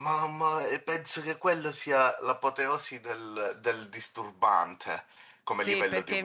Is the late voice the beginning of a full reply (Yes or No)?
Yes